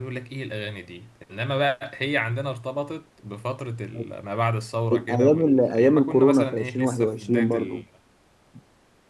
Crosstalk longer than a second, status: present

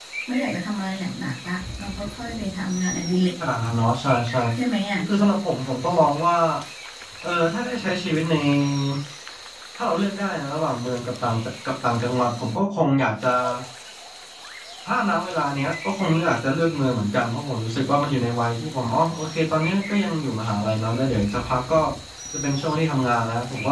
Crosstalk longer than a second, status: none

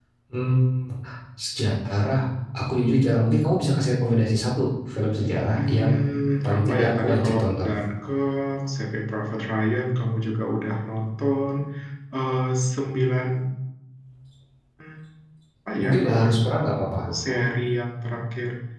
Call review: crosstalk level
present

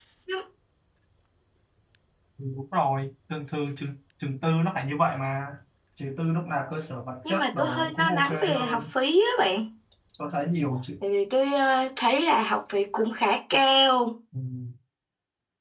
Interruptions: present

